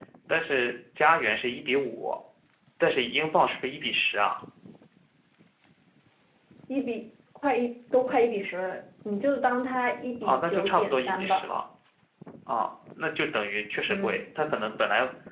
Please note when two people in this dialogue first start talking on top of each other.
10.2 s

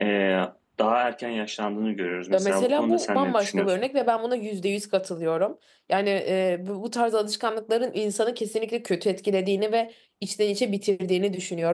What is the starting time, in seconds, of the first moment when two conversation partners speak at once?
2.3 s

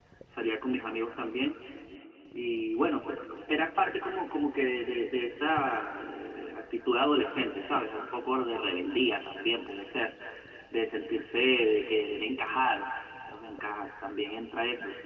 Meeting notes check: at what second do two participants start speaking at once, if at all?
none

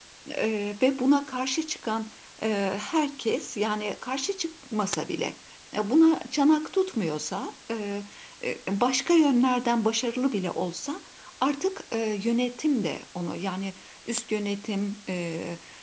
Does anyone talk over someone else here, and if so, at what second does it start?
none

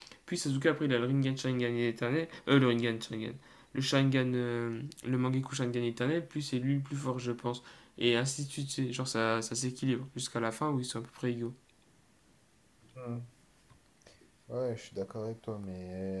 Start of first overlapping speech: none

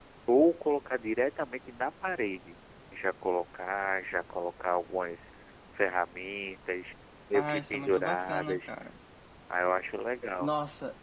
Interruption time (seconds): 7.3 s

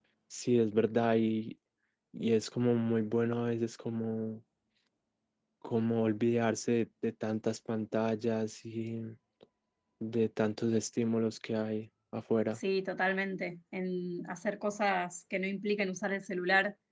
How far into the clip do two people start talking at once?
none

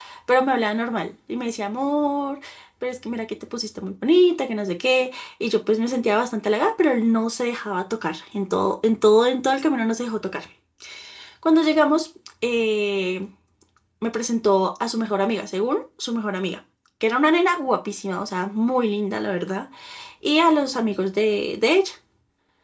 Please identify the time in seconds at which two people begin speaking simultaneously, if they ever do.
none

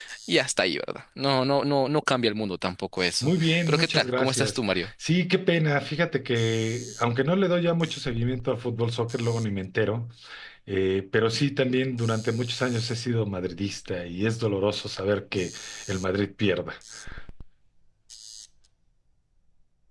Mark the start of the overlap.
3.2 s

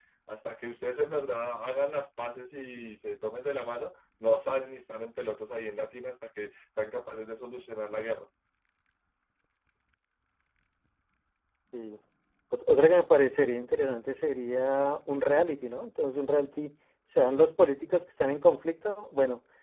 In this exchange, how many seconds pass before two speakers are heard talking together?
none

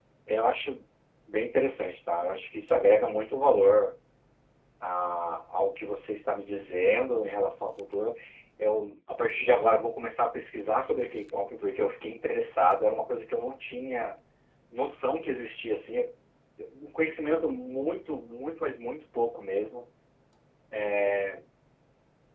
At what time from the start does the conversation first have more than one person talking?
none

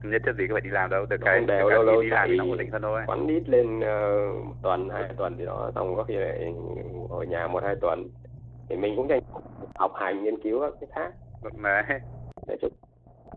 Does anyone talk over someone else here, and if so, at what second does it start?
1.2 s

